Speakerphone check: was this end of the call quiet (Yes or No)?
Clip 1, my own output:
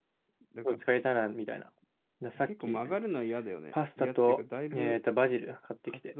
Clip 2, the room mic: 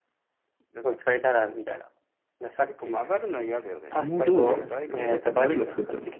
No